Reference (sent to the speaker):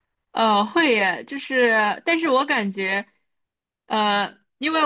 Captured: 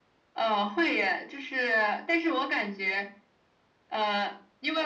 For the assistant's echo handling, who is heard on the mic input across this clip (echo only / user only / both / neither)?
echo only